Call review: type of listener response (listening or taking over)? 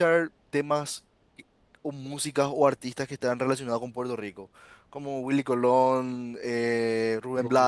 taking over